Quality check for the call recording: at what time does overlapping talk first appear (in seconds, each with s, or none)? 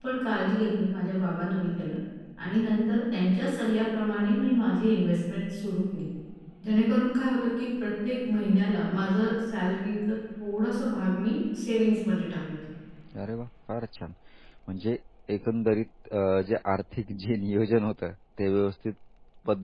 none